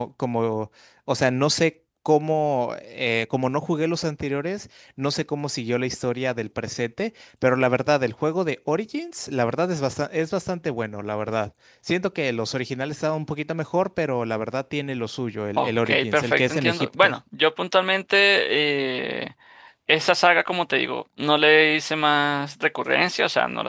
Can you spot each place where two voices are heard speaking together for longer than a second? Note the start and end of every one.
15.6-17.2

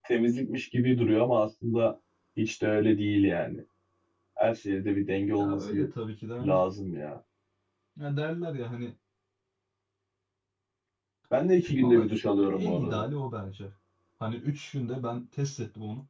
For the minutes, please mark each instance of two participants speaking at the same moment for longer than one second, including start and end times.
11.8-13.0

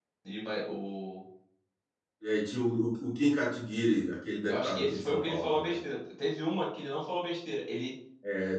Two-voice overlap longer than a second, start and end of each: 4.5-5.8

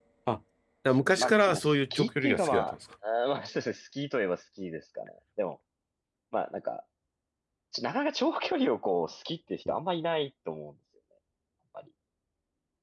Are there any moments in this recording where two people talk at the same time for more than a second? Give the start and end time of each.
1.2-2.8

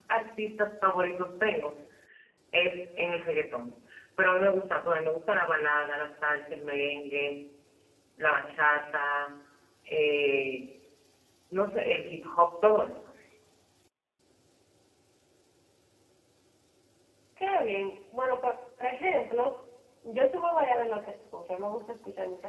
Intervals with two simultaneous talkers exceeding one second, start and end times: none

